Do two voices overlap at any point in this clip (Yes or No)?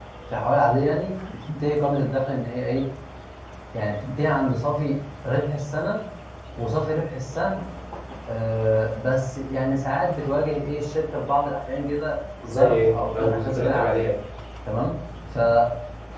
Yes